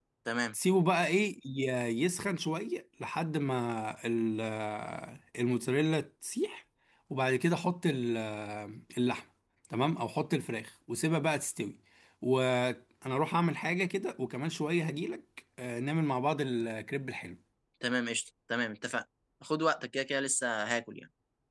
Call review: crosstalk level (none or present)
none